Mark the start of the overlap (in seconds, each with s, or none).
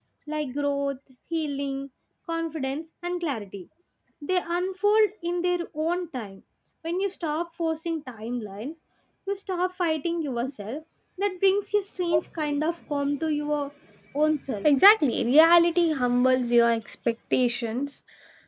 none